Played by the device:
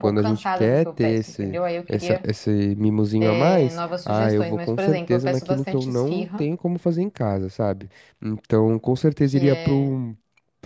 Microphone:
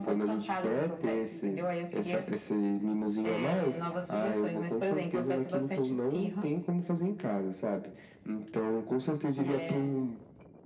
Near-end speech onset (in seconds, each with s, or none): none